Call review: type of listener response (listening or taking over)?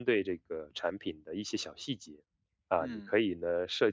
listening